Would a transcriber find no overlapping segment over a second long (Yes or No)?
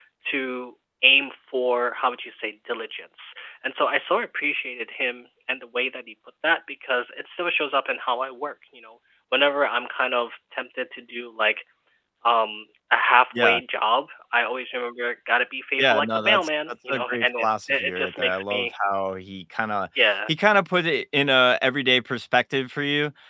No